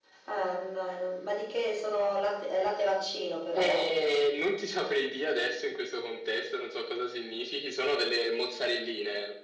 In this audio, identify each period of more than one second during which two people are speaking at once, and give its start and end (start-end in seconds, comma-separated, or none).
none